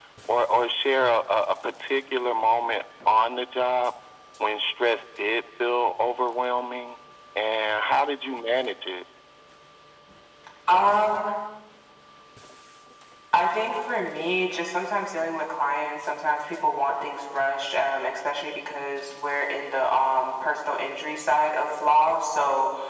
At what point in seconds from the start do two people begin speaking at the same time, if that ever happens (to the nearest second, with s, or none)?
none